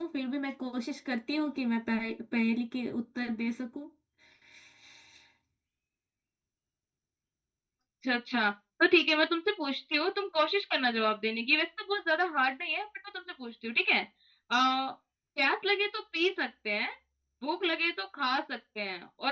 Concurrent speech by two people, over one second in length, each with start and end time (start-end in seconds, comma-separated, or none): none